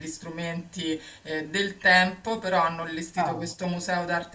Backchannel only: Yes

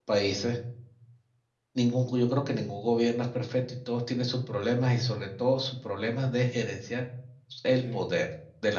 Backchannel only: Yes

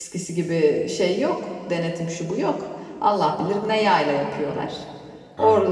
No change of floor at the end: Yes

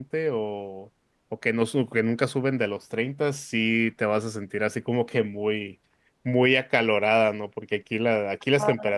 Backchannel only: Yes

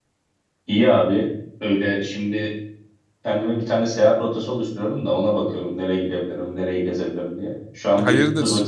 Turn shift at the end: No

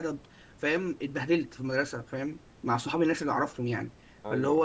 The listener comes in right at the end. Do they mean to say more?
No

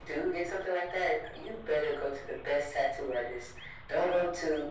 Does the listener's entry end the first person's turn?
No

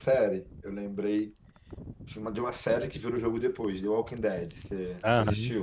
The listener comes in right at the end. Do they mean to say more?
Yes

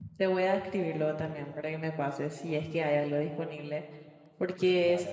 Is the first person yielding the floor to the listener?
No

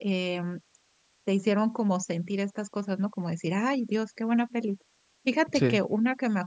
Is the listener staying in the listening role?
Yes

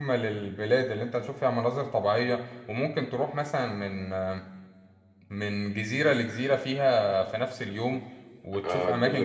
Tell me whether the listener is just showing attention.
No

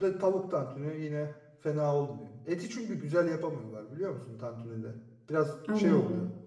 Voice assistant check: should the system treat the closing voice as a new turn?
No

